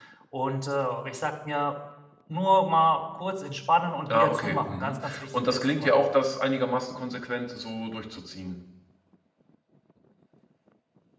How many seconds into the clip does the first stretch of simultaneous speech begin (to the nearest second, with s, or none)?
4 s